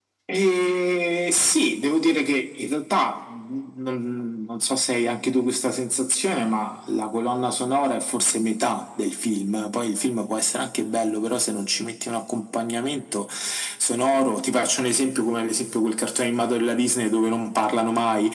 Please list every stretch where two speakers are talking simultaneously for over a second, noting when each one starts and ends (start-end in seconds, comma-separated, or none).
none